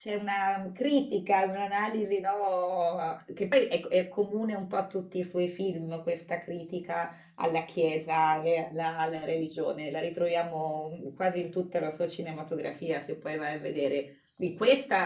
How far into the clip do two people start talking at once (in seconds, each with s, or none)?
none